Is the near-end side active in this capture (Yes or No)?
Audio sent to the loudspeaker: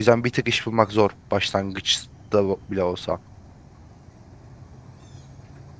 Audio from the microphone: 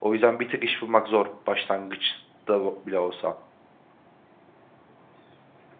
No